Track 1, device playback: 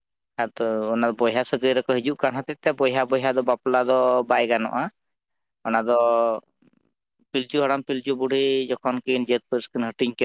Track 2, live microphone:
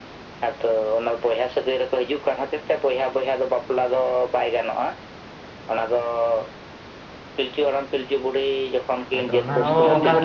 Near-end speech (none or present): present